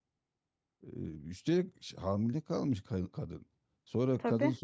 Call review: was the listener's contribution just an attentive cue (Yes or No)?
Yes